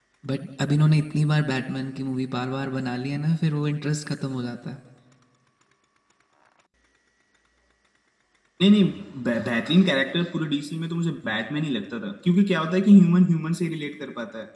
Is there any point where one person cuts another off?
No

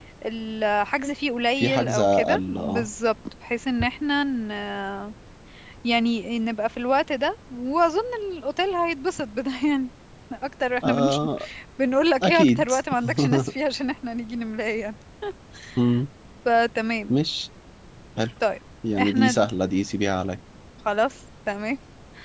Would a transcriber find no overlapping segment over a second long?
No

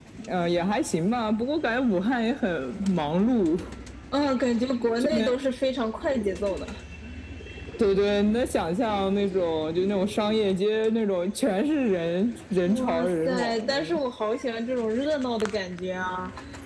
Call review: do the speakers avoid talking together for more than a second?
No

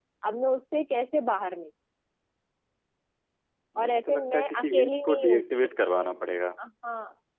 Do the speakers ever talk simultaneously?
Yes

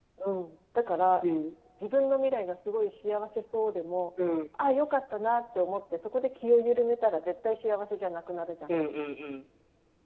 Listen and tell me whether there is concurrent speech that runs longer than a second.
No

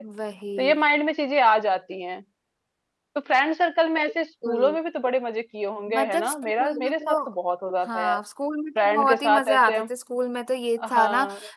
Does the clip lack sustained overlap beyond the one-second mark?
No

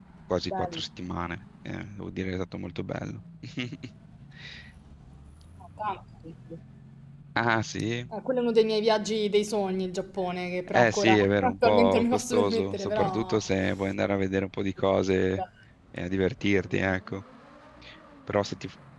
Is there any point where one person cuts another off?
Yes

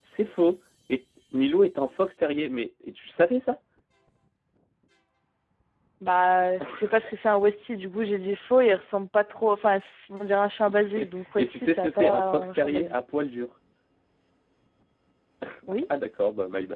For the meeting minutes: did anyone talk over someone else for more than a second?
Yes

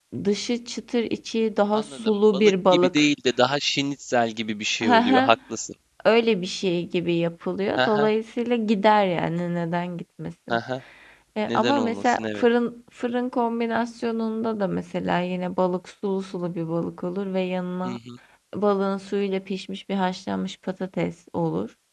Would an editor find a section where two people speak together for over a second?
Yes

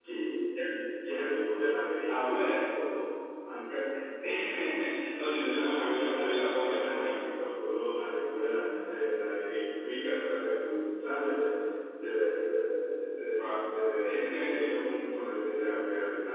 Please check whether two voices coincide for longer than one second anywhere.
Yes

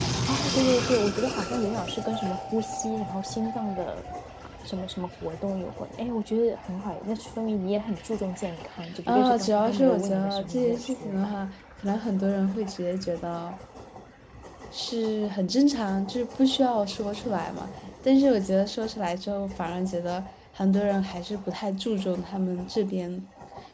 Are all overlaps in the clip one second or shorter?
No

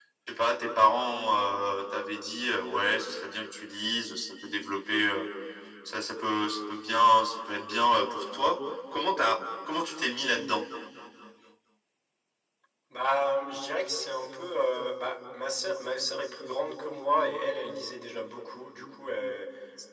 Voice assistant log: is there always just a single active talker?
Yes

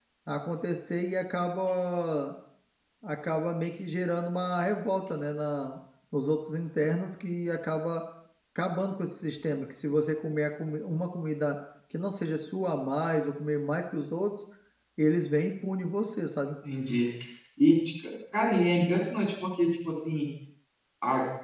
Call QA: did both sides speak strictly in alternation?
Yes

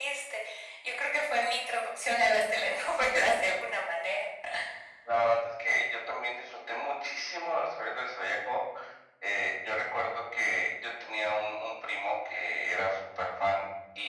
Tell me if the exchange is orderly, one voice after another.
Yes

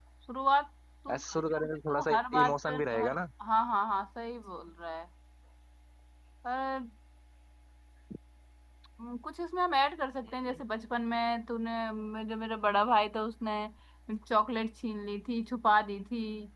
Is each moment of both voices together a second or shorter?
No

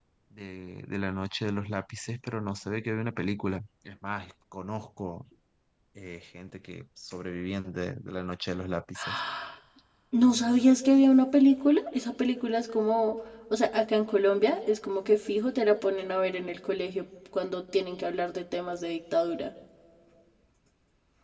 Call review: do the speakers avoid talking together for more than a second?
Yes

